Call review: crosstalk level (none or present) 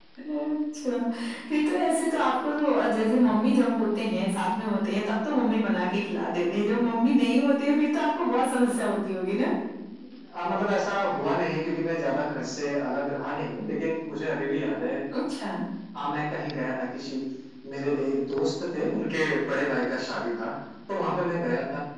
none